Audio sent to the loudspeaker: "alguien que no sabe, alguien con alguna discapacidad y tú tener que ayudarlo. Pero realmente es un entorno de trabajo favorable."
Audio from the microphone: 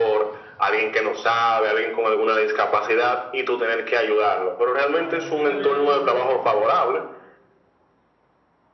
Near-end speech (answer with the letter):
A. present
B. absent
A